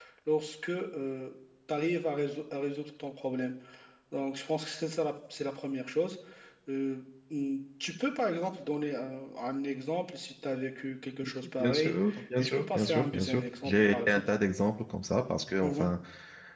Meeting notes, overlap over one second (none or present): present